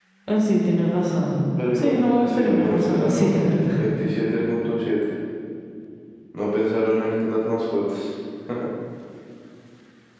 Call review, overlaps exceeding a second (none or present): present